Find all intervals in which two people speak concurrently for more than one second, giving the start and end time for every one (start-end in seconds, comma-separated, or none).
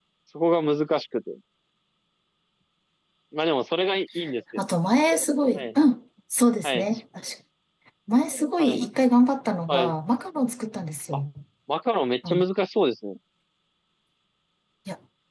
none